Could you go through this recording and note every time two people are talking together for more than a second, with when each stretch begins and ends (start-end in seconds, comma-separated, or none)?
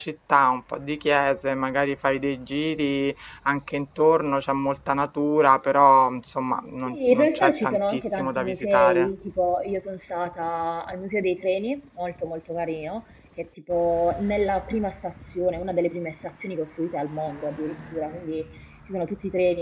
6.9-9.1